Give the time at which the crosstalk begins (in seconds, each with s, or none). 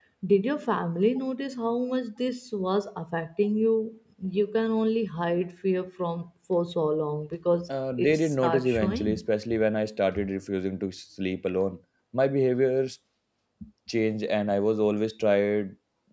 8.0 s